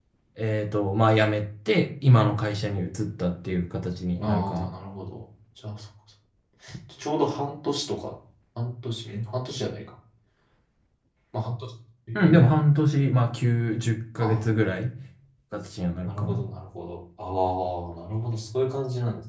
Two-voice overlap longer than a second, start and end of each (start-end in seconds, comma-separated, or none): none